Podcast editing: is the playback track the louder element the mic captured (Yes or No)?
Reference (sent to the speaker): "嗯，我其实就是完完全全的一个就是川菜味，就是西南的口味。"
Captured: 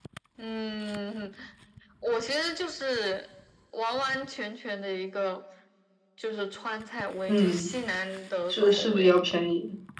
No